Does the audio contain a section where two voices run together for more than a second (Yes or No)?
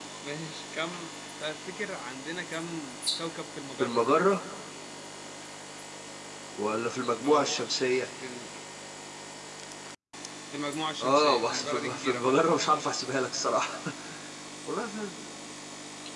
Yes